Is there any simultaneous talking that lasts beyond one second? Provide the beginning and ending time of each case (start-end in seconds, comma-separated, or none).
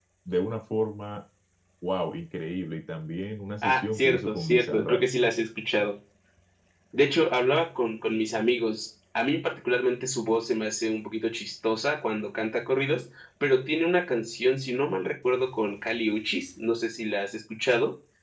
3.6-5.0